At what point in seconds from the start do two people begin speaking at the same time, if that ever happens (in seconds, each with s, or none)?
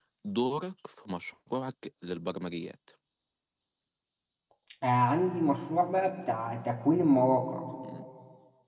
none